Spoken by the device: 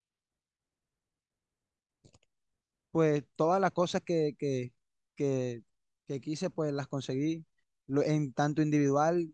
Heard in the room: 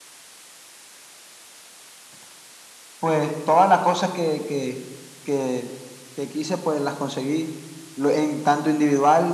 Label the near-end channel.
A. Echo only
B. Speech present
A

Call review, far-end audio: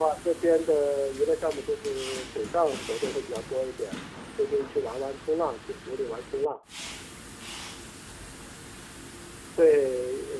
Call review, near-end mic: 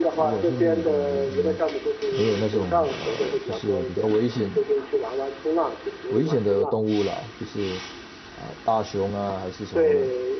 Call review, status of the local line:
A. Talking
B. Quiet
A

